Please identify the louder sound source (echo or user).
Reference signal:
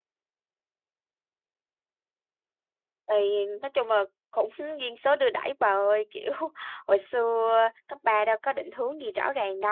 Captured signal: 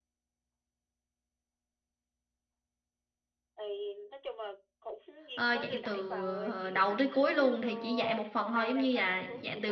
user